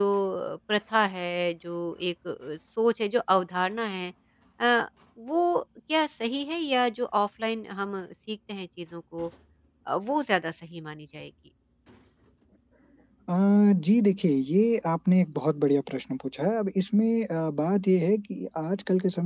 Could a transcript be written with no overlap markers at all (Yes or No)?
Yes